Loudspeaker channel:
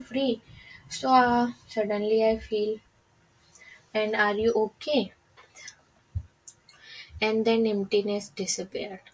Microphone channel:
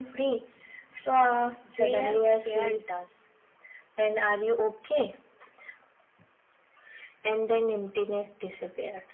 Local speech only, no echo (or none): Their care does.